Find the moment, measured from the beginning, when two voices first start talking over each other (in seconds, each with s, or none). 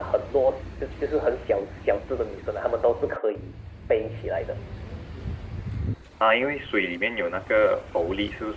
none